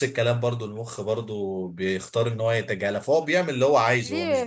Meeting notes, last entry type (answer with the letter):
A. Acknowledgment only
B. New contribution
B